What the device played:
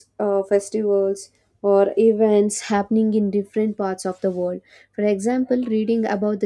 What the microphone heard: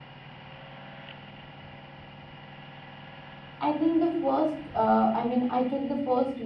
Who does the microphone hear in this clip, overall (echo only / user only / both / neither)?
user only